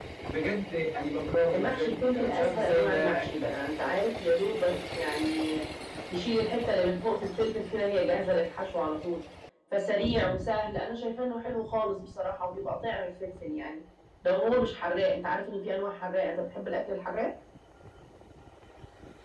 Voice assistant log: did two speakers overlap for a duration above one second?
Yes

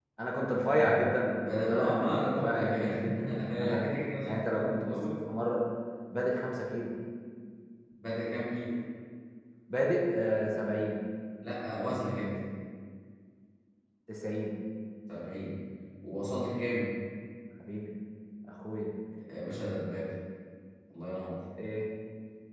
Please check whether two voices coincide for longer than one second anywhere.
Yes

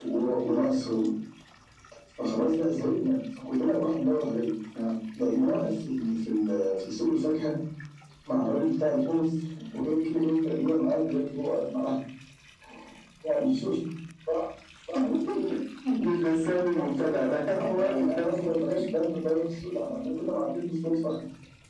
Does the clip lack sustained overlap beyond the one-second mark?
No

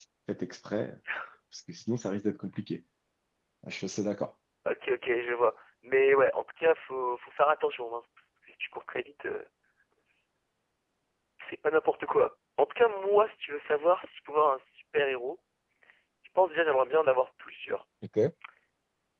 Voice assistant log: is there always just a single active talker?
Yes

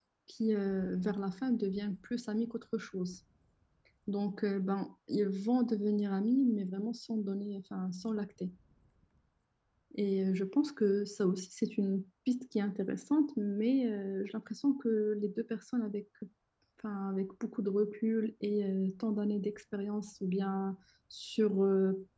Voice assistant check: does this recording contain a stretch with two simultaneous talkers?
No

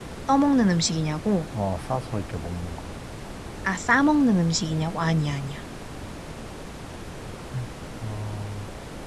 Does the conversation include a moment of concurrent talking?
No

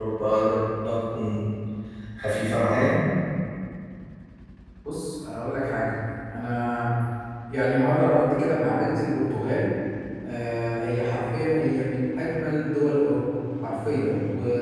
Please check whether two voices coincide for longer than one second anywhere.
No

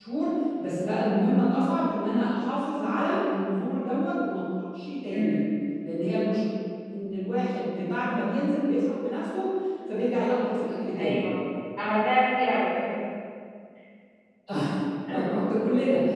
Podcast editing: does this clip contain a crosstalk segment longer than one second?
No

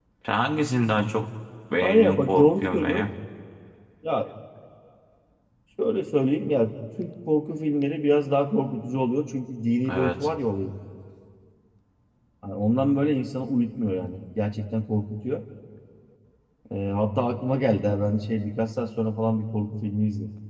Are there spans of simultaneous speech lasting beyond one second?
Yes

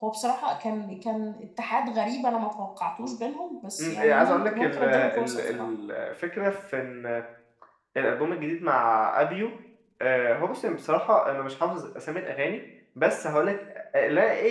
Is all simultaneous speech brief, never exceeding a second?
No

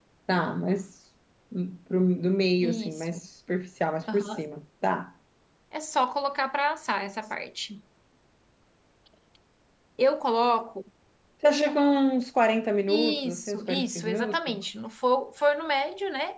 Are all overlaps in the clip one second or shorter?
No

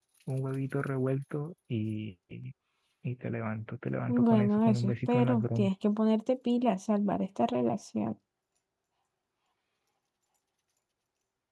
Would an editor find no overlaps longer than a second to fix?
No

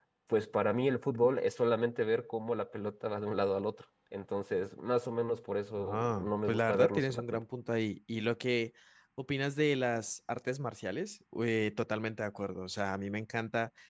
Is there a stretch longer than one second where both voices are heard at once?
Yes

